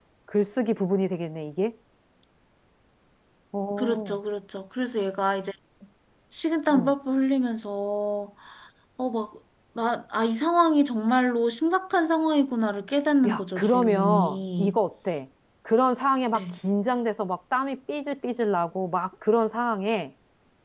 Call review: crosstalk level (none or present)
present